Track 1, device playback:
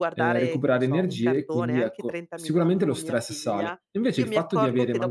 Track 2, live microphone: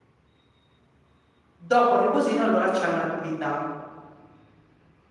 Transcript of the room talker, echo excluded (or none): Dopo il riposino allora c'è un'attività,